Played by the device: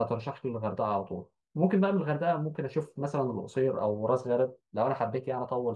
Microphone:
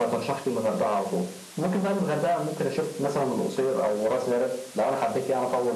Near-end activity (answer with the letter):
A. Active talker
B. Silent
B